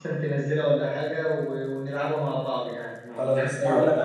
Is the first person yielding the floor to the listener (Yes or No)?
Yes